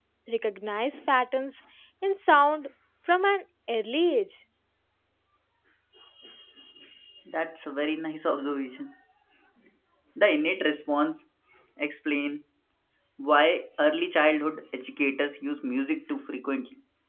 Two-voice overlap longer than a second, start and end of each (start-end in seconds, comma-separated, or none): none